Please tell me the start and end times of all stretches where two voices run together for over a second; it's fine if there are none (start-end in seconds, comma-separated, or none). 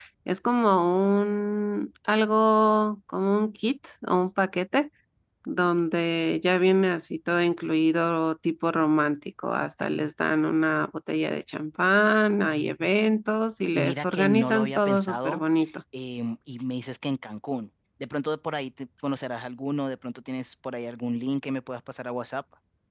13.7-15.4